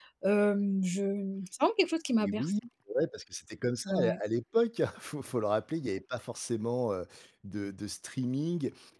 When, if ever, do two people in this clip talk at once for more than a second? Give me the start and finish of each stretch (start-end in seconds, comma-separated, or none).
none